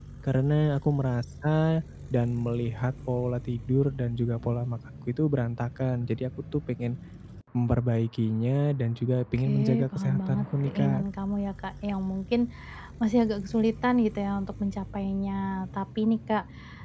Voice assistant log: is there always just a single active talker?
No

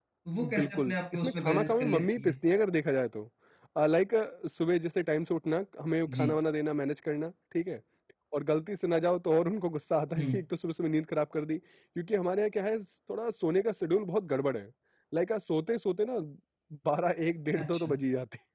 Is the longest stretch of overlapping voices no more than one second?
No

